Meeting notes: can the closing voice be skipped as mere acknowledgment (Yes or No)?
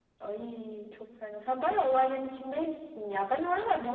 Yes